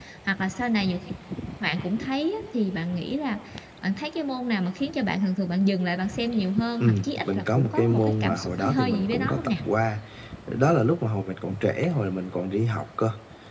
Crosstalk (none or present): present